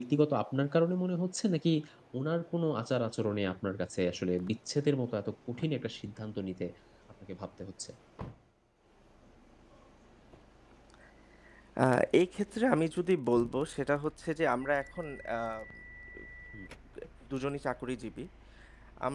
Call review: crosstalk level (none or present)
none